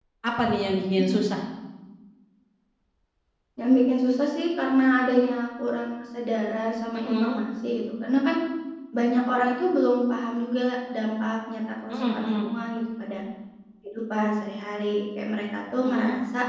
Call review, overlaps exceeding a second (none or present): none